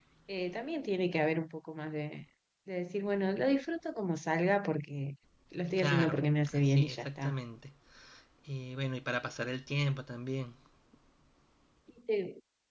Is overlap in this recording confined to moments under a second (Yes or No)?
No